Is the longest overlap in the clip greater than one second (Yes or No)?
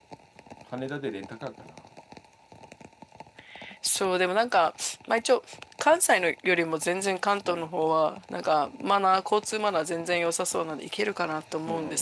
No